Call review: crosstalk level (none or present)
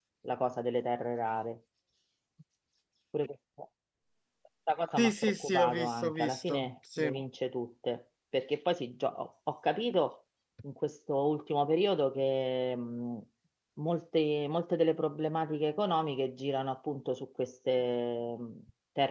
present